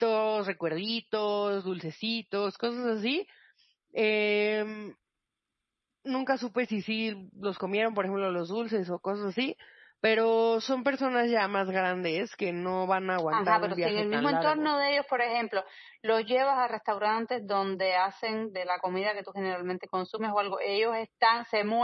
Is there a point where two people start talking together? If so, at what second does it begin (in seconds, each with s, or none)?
13.3 s